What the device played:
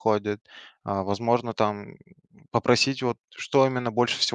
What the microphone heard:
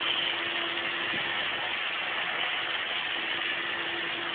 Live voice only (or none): none